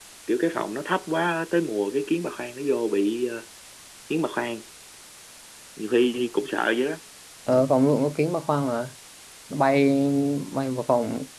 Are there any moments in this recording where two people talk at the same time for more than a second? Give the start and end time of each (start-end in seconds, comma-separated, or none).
none